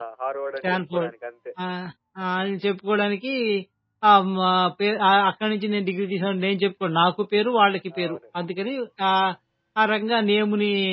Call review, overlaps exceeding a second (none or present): none